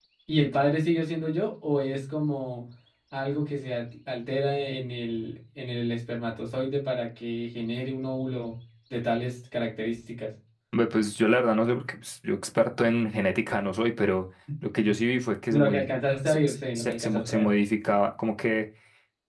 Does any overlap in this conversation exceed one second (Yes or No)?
Yes